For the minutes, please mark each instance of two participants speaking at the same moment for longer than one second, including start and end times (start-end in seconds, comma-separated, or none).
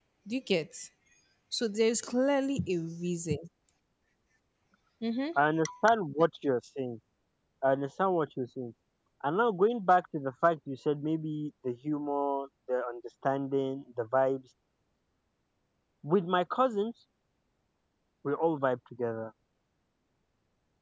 none